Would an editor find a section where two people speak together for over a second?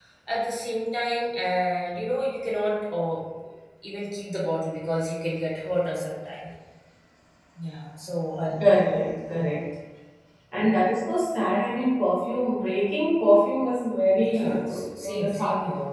Yes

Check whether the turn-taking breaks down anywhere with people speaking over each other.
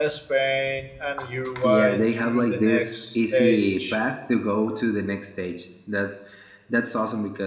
Yes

